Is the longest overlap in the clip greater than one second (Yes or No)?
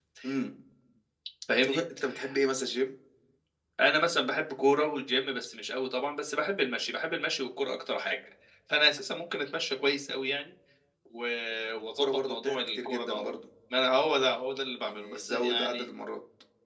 Yes